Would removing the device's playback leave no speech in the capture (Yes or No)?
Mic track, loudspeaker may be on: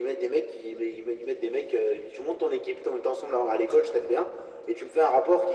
Yes